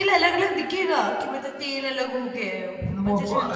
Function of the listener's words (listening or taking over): taking over